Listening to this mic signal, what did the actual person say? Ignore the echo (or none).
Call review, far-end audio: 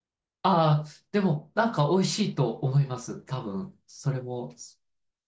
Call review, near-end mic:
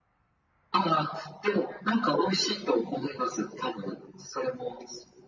none